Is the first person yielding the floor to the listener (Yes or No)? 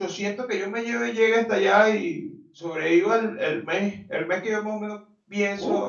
Yes